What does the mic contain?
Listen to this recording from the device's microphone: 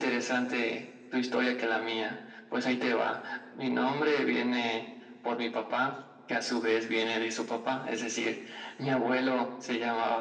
echo only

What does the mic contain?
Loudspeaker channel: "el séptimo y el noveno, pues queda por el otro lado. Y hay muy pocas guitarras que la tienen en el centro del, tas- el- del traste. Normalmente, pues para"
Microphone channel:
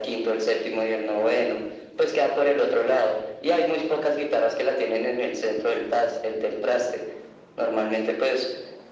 echo only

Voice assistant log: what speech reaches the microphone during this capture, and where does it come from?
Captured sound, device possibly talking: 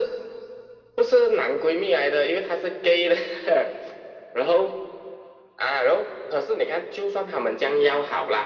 echo only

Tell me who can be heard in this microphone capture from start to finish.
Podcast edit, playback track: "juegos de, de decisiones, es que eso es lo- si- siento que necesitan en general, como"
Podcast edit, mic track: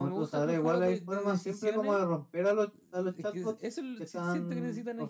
both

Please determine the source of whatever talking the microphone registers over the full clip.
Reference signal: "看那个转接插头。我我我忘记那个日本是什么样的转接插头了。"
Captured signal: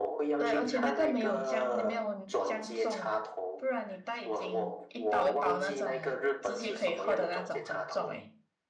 both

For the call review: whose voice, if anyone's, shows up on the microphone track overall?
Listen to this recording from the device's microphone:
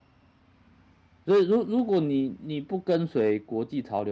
user only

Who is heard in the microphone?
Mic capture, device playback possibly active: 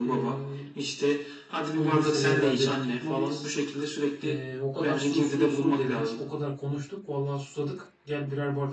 both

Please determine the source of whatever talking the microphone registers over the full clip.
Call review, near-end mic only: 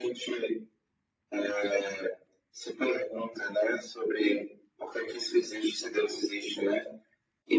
echo only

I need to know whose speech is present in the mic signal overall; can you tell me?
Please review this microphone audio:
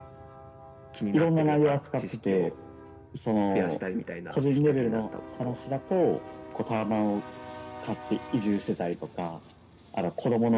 echo only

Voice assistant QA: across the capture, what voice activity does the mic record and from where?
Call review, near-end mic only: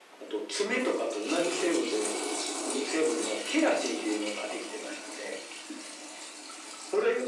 echo only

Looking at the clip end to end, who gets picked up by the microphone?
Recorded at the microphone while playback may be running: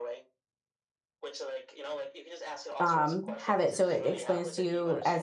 both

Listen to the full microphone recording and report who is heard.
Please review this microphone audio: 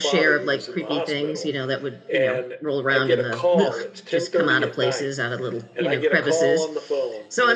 both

